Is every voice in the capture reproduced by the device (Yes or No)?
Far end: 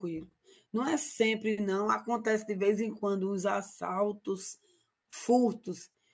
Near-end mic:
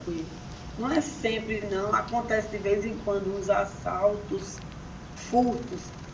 Yes